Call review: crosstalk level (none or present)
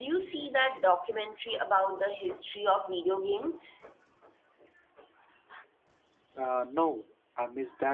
none